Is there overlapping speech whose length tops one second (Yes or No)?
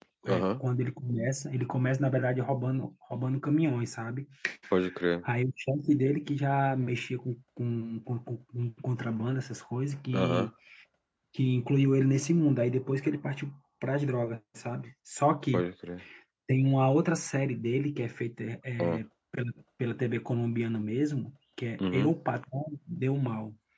No